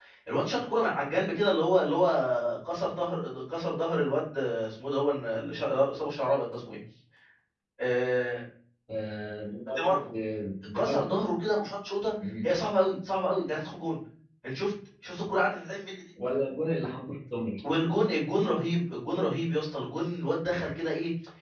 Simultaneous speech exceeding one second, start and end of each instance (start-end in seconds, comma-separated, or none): none